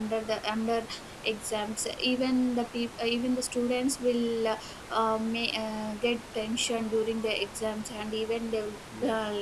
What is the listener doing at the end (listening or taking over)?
listening